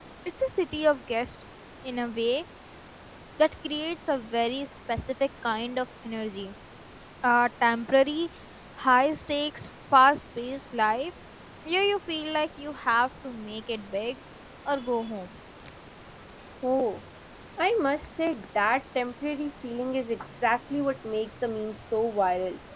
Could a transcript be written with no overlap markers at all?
Yes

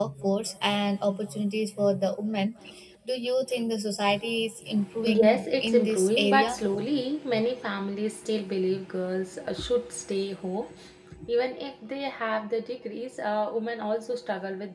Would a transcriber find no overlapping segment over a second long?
No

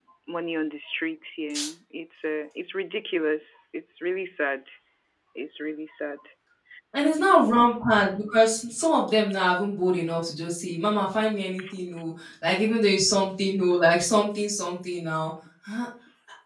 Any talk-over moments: No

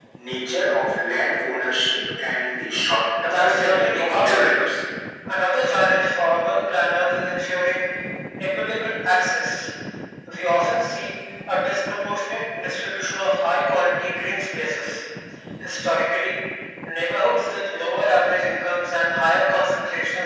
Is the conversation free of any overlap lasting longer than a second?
No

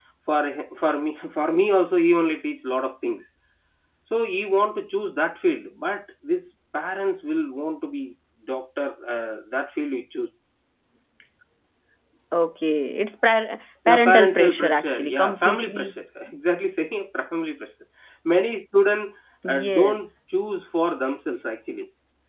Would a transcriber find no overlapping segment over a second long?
No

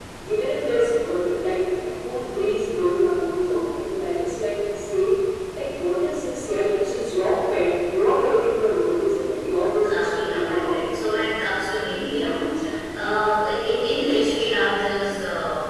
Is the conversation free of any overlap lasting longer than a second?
No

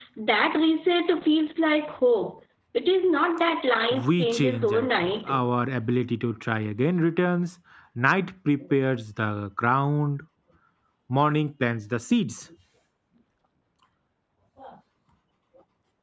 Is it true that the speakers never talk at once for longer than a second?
No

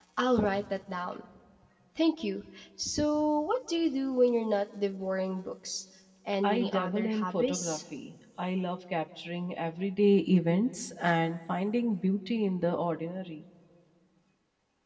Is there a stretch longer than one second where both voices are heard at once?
Yes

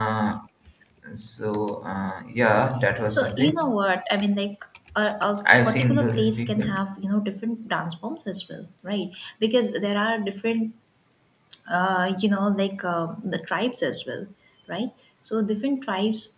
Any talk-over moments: Yes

